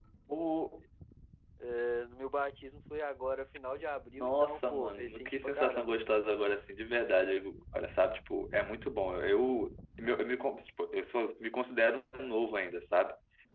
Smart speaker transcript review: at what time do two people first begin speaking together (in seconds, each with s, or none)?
4.2 s